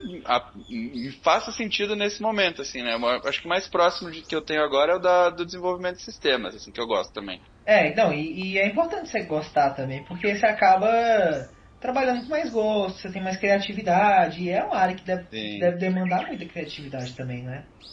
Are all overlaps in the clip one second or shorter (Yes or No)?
Yes